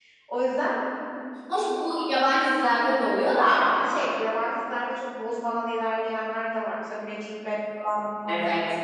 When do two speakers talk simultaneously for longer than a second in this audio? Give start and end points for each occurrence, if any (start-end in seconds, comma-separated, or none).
none